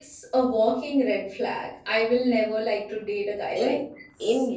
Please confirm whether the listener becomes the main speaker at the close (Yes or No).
Yes